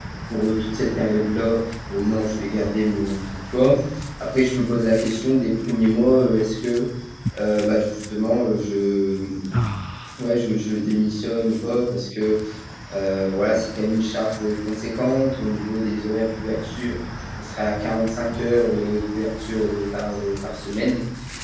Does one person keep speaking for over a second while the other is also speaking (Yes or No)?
No